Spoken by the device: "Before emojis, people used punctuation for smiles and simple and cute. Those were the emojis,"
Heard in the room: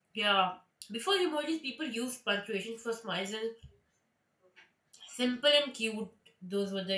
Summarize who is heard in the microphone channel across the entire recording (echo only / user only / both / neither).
echo only